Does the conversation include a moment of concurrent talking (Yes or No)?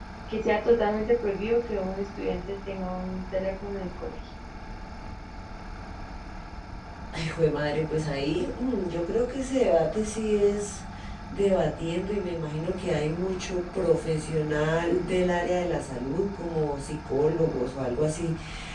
No